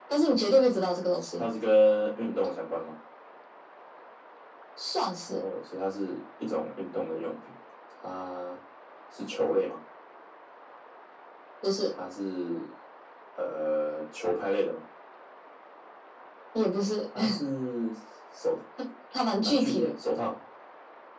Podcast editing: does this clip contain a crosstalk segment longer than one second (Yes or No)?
No